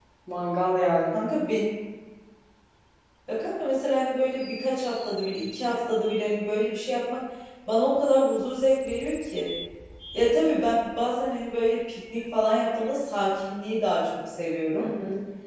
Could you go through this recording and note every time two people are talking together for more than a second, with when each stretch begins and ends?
none

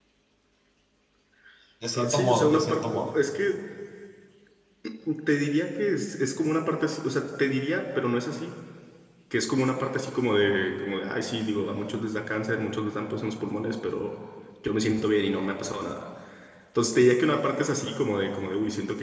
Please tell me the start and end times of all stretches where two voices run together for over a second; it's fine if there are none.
1.9-3.2

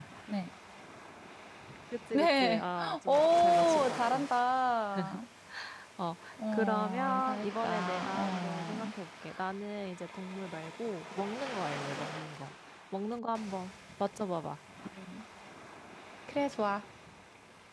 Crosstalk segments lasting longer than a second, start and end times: 2.1-4.2, 6.5-8.9

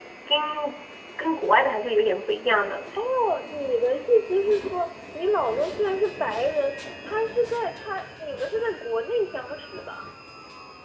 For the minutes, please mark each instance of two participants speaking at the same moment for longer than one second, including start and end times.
none

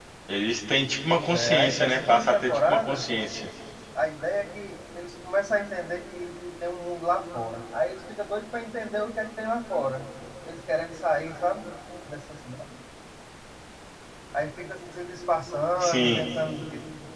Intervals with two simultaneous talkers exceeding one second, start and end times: 1.1-3.0

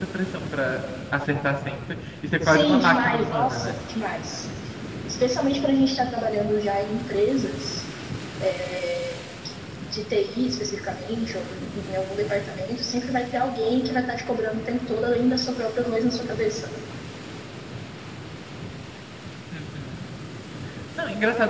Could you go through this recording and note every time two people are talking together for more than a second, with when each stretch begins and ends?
2.5-3.7

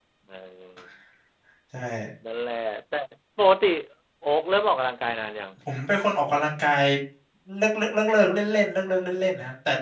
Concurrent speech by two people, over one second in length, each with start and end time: none

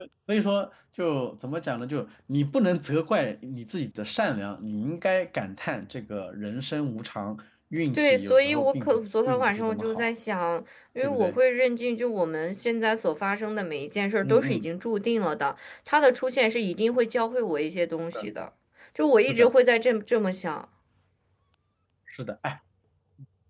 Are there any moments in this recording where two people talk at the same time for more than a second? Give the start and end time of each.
7.9-10.1

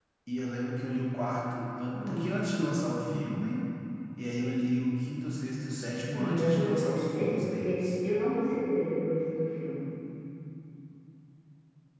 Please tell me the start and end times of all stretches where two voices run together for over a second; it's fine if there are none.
6.1-7.9

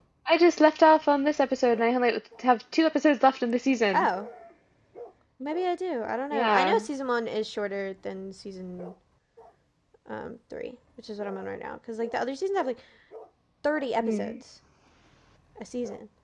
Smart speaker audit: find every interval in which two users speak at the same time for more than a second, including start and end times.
none

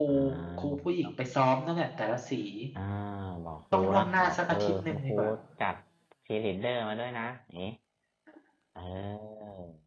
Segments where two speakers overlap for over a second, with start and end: 3.7-5.2

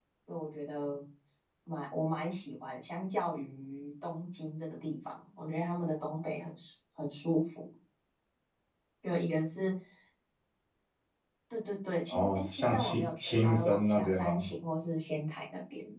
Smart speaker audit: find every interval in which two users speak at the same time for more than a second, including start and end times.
12.1-14.4

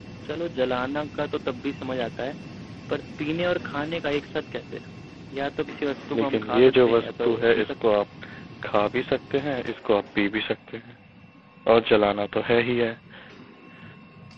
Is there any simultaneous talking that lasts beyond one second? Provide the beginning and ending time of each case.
6.2-7.7

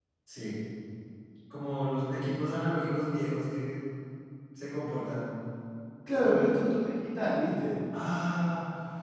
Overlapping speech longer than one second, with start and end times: none

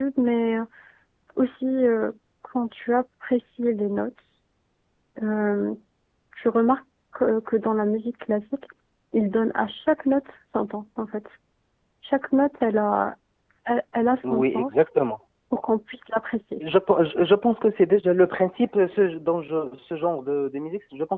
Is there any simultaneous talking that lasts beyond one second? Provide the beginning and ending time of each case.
none

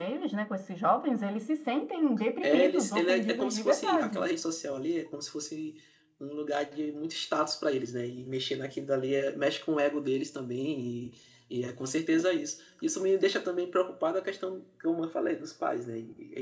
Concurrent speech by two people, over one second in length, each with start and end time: 2.4-4.2

